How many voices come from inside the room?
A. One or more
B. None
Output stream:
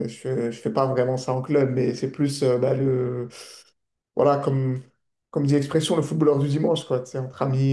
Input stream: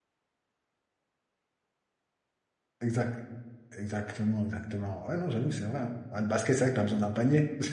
A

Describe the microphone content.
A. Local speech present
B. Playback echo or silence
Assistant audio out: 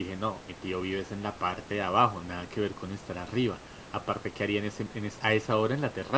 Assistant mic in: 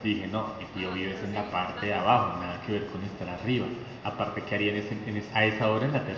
A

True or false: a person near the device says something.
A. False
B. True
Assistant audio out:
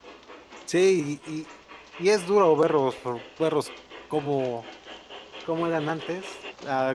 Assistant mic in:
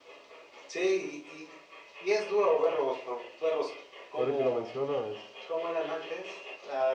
B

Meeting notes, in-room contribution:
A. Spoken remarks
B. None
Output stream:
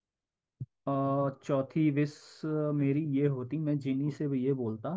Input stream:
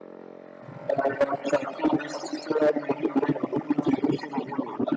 B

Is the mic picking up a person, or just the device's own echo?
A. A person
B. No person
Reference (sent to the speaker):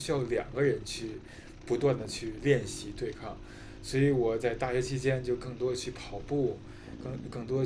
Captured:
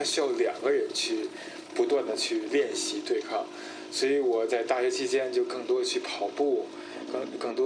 B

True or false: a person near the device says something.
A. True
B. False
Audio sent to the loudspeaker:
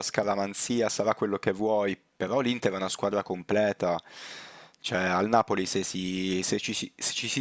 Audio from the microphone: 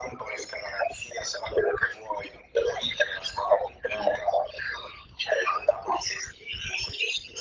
B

